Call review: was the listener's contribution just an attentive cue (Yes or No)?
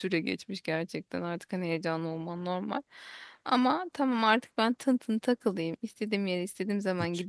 Yes